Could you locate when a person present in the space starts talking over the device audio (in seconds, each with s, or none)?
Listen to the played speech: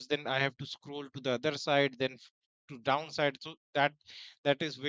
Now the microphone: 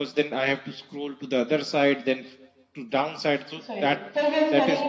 3.7 s